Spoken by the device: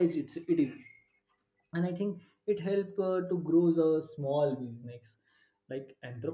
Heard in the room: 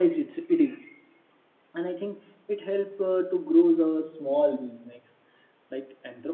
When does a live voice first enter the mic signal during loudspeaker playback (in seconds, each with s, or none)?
none